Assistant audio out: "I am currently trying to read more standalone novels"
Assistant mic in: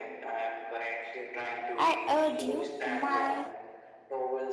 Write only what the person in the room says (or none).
I urge you my